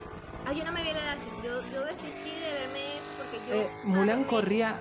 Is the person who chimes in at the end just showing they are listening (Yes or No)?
No